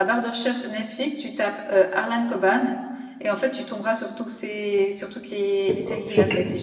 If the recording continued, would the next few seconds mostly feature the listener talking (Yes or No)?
Yes